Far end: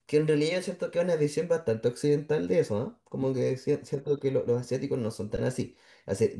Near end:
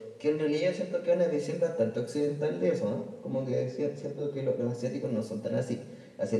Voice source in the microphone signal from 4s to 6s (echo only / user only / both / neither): echo only